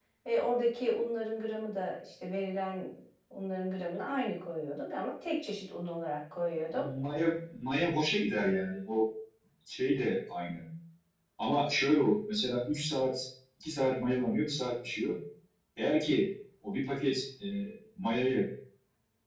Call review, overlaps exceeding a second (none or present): none